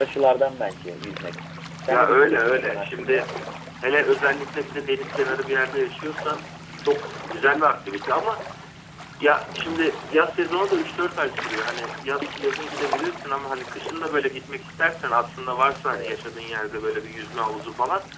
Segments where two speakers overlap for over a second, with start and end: 1.9-3.3

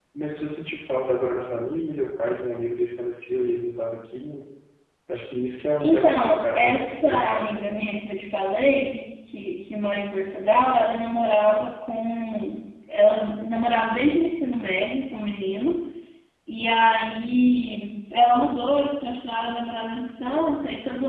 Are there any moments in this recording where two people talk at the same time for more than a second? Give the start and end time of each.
5.8-8.0

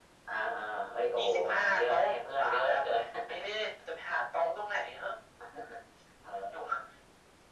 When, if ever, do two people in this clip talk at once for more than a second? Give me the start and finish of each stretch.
1.2-2.8

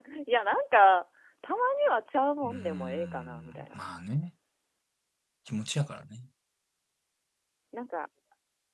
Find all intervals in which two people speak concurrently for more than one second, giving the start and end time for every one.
2.4-3.8

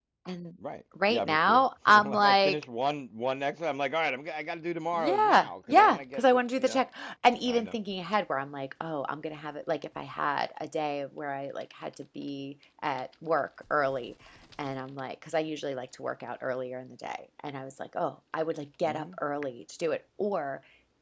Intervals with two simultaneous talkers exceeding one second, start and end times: 1.1-2.6, 4.9-6.9

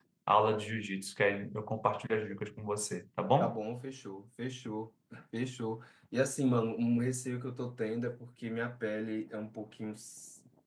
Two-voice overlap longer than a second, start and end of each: none

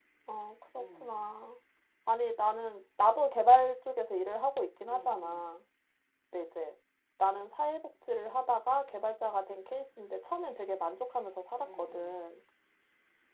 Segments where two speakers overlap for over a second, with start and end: none

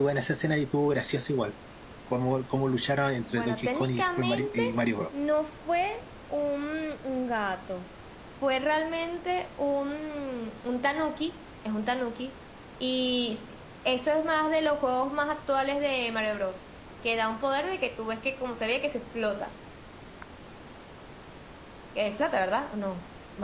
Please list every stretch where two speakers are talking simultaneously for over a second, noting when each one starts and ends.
3.2-4.6

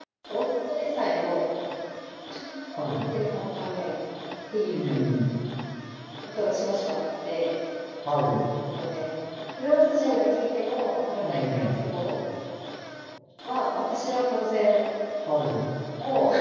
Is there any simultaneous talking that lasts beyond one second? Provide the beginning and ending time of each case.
none

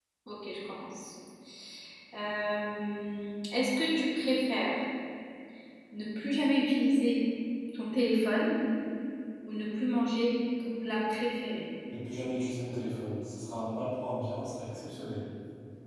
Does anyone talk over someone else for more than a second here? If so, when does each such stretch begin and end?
none

